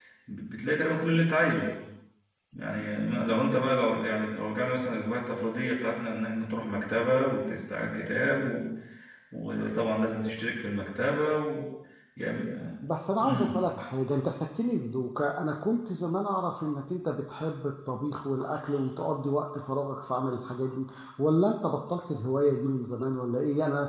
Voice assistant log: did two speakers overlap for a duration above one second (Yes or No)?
No